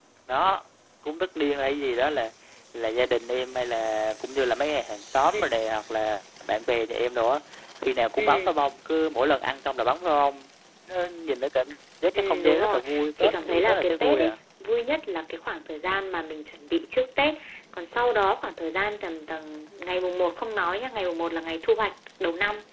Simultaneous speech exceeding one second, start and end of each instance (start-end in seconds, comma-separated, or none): 12.1-14.3